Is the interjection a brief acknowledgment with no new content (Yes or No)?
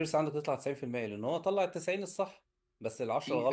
Yes